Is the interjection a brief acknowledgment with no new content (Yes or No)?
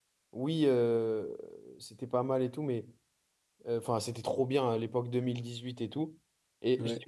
Yes